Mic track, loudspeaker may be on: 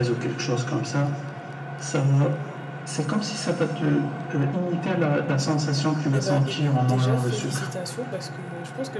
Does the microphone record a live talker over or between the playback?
Yes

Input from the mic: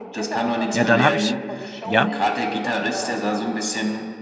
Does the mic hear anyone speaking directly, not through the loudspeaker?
Yes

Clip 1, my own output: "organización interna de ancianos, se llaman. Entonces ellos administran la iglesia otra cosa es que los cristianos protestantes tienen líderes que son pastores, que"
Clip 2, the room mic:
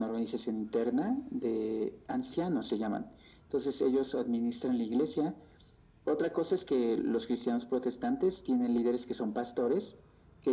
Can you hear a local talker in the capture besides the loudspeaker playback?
No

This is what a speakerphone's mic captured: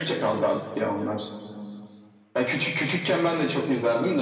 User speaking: No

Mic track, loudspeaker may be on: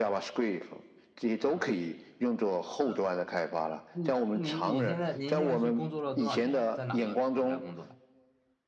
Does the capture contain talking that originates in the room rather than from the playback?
Yes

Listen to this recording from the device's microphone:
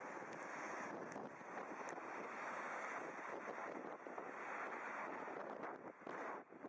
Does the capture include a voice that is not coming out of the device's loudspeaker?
No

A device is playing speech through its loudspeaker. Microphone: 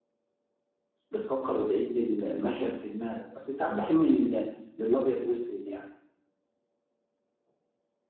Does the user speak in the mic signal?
Yes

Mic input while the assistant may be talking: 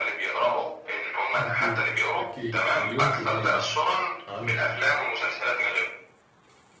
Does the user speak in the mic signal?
Yes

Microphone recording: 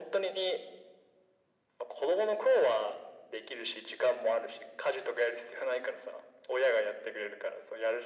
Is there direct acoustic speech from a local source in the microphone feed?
No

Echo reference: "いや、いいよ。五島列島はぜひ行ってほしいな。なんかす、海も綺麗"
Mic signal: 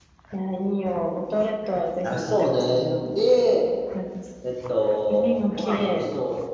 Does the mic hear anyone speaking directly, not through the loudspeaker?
Yes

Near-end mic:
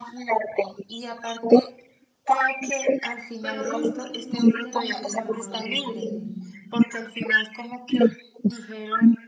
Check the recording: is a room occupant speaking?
Yes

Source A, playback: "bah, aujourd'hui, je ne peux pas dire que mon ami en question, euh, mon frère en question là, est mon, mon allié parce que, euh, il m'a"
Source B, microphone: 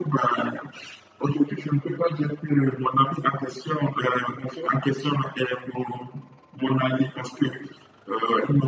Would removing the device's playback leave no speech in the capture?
Yes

